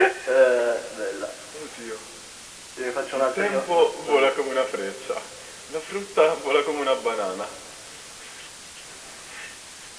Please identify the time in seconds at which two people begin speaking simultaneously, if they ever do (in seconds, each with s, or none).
3.1 s